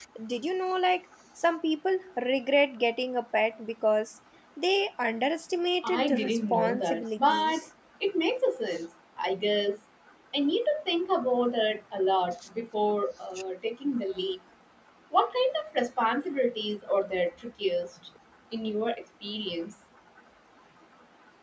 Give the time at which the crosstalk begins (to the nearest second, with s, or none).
6 s